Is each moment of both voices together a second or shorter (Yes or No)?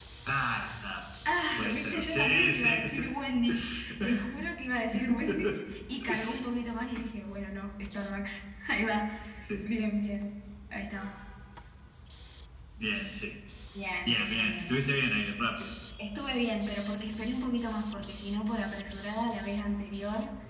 No